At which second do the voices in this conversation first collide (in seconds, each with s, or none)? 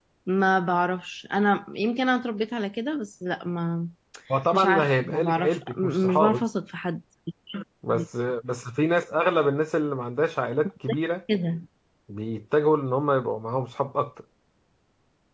4.5 s